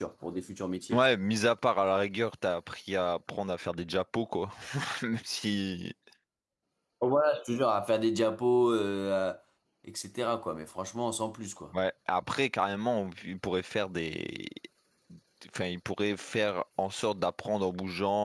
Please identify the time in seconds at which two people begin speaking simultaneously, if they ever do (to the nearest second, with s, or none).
none